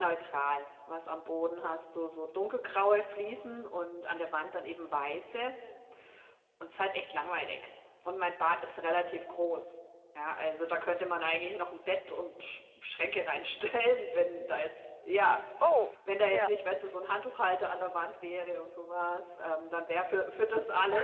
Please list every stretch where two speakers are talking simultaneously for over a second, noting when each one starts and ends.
none

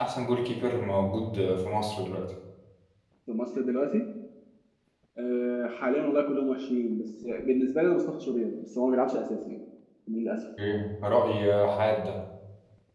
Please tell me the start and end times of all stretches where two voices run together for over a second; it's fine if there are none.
none

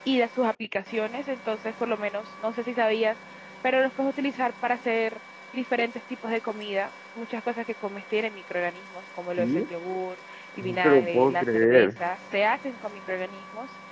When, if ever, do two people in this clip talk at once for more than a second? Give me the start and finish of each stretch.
10.6-12.0

